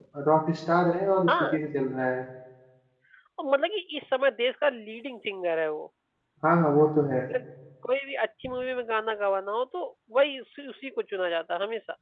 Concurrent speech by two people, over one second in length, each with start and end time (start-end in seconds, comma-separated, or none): none